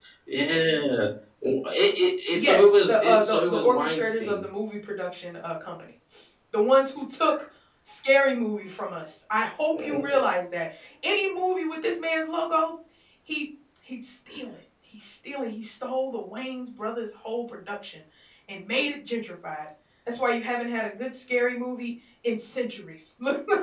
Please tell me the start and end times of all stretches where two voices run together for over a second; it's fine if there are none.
2.3-4.4

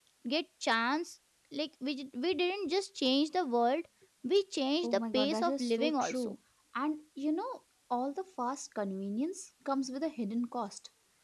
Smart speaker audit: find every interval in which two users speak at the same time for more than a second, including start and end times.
4.8-6.3

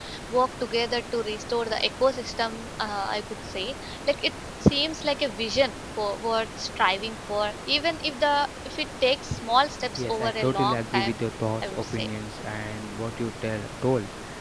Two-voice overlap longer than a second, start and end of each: 10.0-11.2

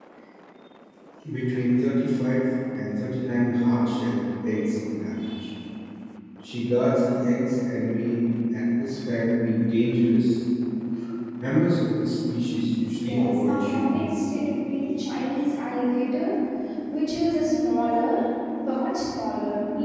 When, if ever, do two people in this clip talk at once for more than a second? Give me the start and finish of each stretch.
13.0-14.2

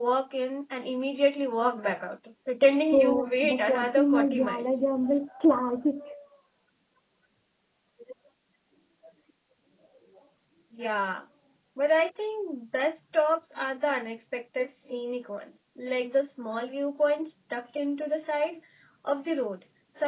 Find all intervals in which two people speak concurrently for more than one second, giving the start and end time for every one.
2.9-4.7

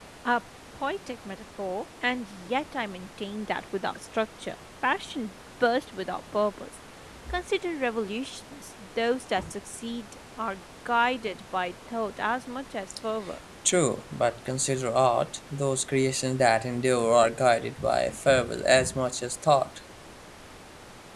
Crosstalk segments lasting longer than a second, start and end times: none

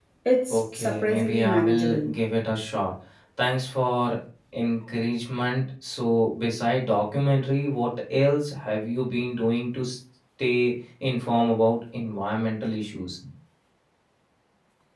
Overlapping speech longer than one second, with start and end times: 0.5-2.1

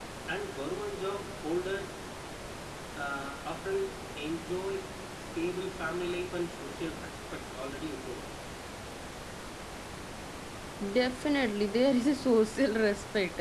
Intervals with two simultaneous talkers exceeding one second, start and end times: none

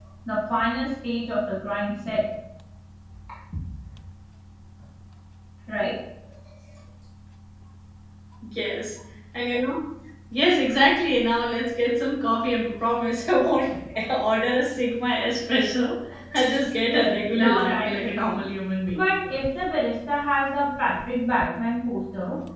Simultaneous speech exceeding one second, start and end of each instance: 16.9-18.4

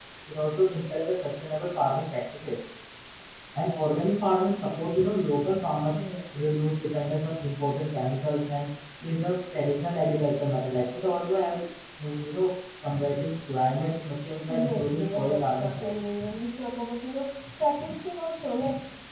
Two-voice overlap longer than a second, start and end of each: 14.5-16.1

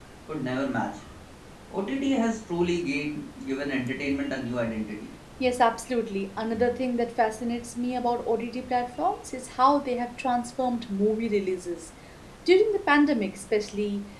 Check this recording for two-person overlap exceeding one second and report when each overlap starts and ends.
none

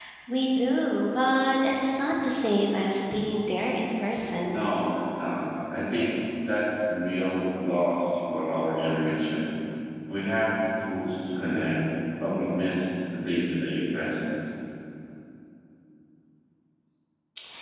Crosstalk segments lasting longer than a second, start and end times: none

